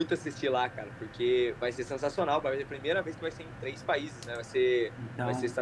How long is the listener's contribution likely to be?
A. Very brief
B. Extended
A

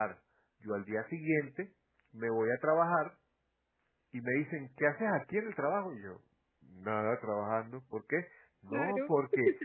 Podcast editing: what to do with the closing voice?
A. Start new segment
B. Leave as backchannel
B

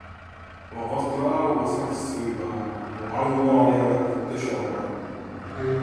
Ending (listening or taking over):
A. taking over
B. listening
A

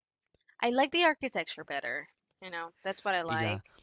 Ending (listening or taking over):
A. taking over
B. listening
A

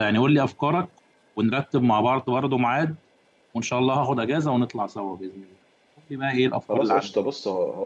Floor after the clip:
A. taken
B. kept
A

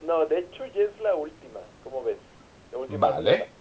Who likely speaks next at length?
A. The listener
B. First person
A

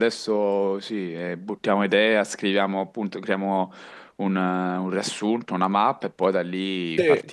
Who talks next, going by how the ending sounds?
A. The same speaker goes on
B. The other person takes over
B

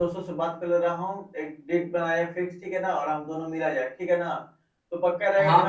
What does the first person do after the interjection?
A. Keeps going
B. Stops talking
B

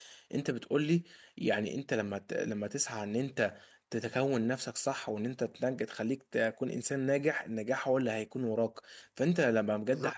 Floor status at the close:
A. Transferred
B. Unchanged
B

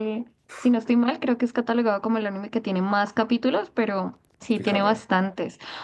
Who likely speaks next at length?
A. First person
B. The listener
A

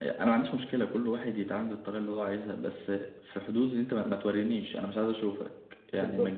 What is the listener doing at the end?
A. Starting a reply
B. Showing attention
B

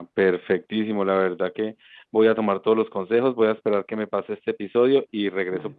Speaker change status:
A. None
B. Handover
A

